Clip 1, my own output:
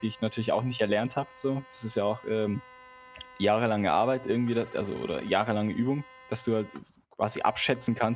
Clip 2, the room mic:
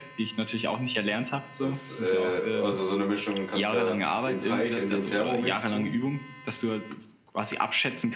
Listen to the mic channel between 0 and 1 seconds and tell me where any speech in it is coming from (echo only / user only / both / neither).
echo only